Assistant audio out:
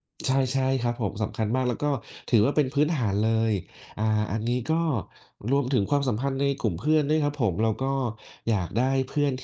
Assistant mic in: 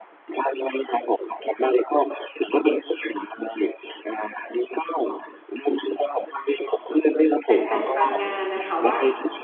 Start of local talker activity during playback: 7 s

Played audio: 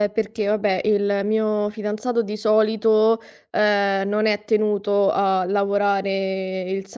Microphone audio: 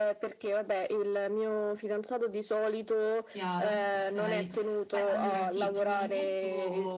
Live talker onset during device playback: 3 s

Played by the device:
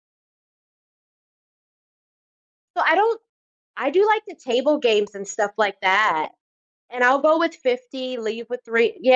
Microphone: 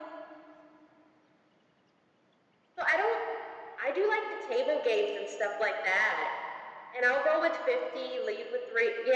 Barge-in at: none

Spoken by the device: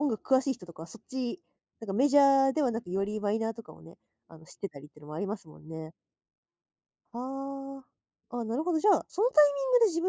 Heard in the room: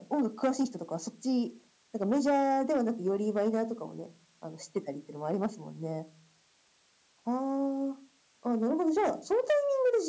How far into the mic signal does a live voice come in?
none

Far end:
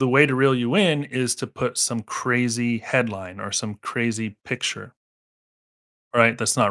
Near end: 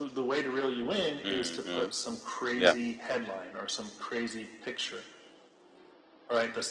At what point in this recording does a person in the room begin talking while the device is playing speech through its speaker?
1 s

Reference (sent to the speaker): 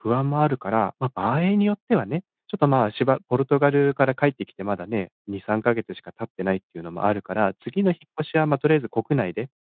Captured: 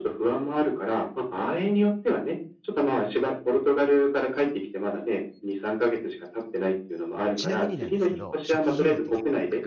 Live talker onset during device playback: 7 s

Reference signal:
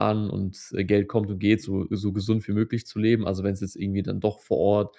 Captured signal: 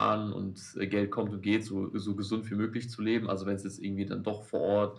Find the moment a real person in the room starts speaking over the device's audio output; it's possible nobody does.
none

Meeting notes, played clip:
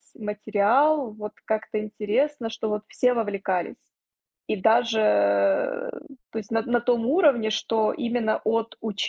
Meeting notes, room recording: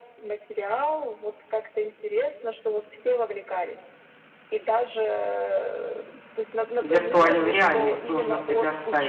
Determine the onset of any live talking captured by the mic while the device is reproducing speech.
7 s

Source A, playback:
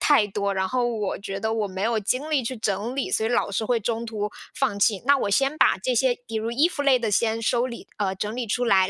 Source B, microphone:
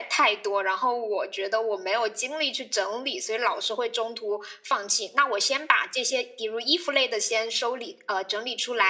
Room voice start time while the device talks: none

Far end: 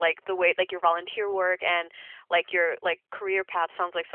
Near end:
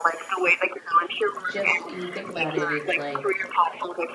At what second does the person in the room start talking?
1 s

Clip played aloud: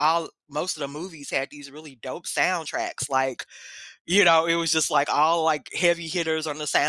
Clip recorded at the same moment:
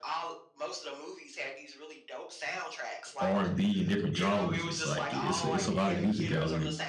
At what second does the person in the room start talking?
3 s

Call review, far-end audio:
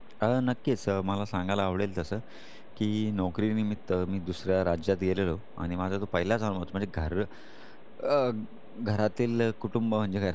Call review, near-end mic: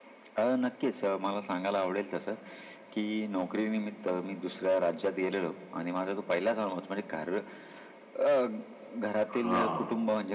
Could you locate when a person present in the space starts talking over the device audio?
9 s

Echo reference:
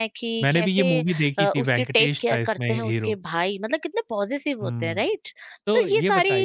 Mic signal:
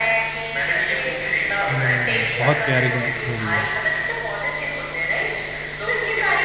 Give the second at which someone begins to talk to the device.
2 s

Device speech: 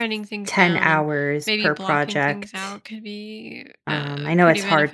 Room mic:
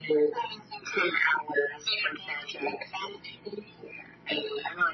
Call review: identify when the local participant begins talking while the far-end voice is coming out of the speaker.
none

